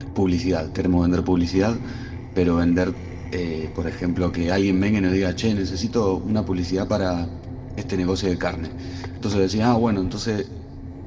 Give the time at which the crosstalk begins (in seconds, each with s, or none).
none